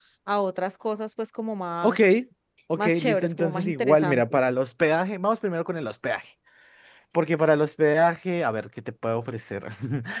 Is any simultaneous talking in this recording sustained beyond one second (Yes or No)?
Yes